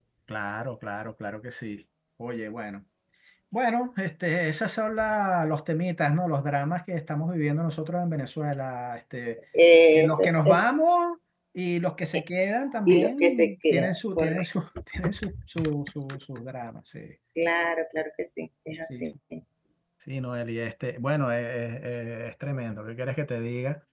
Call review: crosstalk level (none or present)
present